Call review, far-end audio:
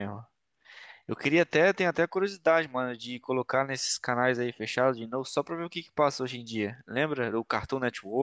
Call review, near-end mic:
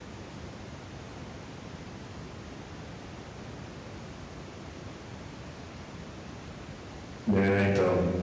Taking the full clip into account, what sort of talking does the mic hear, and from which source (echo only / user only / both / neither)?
user only